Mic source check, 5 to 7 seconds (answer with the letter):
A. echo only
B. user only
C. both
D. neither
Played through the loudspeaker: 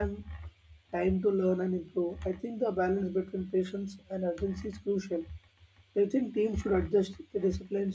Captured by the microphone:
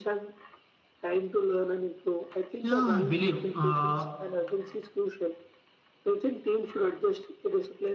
A